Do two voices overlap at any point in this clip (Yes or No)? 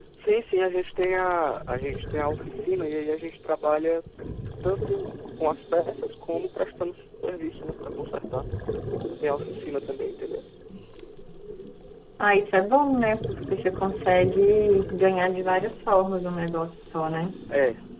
No